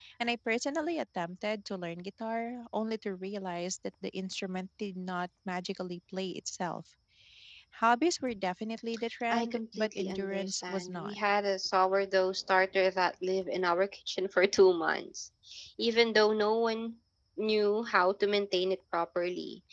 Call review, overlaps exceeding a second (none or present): present